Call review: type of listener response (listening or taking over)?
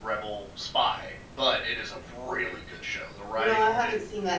taking over